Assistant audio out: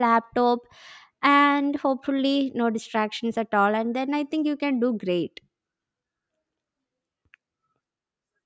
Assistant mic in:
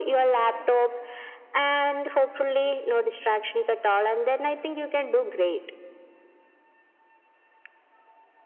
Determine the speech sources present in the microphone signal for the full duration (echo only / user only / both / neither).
echo only